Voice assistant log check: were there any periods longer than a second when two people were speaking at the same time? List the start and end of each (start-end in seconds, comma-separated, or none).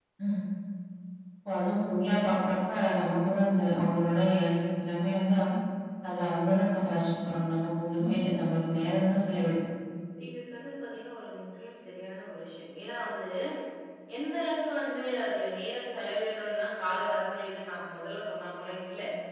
none